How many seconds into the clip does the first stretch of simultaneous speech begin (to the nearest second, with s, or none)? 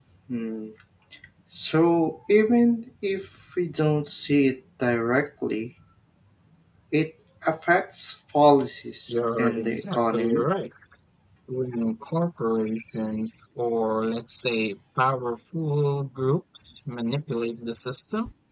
9 s